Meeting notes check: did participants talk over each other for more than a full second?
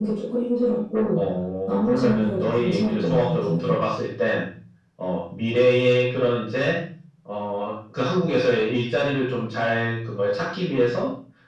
Yes, from 1.7 s

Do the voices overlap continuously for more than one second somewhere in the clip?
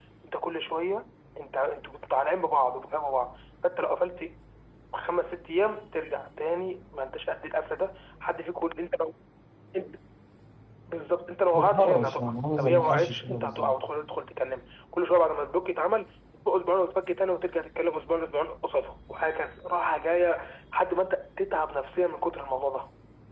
Yes, from 11.5 s

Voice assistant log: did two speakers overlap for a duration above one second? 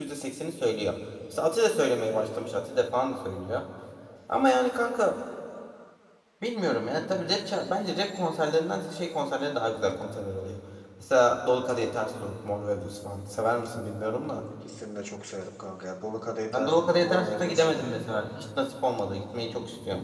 Yes, from 16.5 s

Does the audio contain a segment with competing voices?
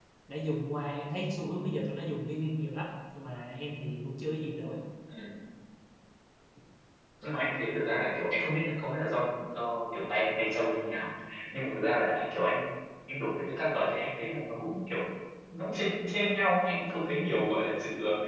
No

